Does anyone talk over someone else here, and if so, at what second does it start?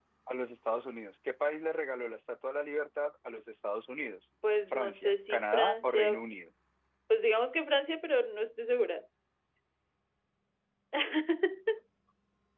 4.7 s

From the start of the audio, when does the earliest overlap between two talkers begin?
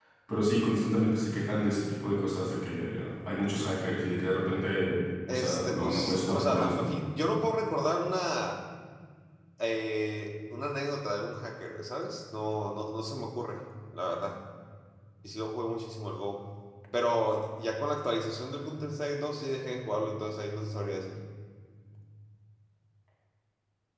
5.3 s

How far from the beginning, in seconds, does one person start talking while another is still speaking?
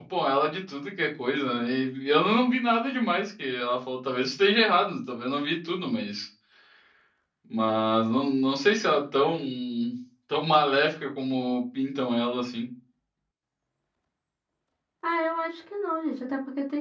none

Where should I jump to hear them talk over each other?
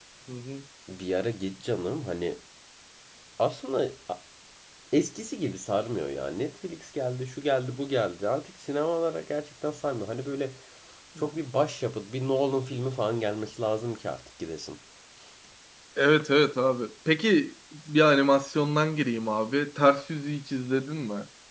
none

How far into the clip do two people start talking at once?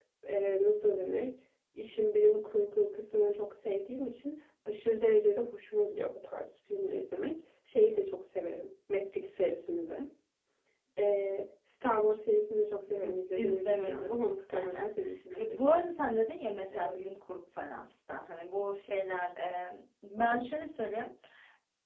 13.0 s

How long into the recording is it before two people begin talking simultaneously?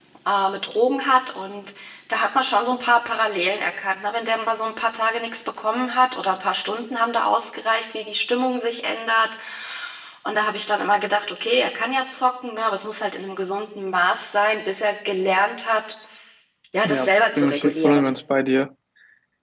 16.8 s

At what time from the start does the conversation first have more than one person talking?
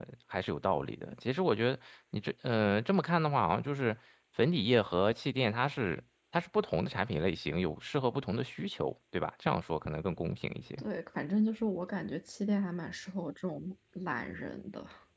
none

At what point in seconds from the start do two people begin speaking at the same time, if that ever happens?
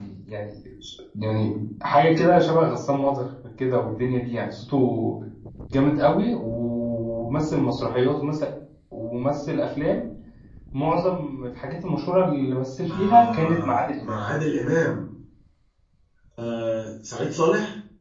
12.9 s

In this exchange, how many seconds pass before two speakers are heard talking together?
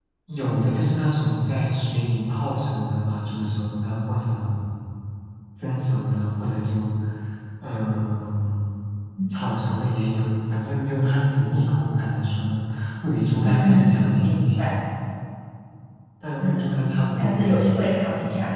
13.4 s

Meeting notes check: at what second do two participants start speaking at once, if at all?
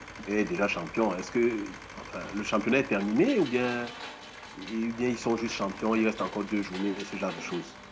none

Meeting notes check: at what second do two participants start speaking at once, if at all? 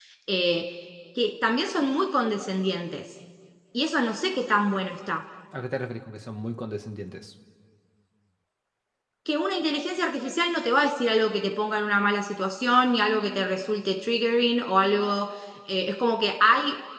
none

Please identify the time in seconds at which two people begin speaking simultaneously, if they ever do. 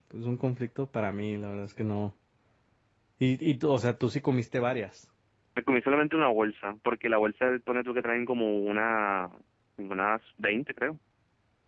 none

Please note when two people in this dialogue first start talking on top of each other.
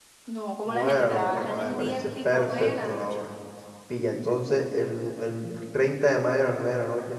0.7 s

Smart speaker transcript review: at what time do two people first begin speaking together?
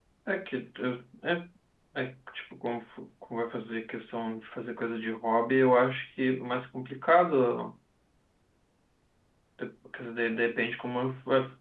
none

